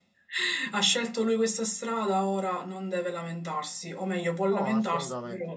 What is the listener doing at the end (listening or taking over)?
listening